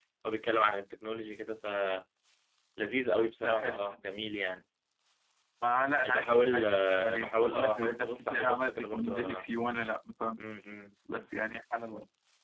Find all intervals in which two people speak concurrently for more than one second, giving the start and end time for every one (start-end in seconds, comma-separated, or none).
6.1-9.5